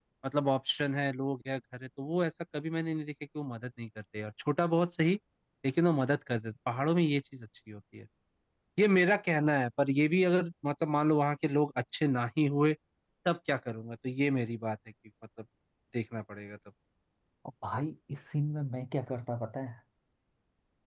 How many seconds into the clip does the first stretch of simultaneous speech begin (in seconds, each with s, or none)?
none